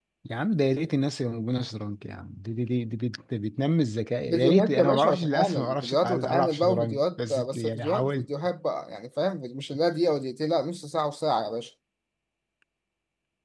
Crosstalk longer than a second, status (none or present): present